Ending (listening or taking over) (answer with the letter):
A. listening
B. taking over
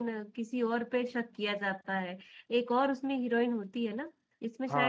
B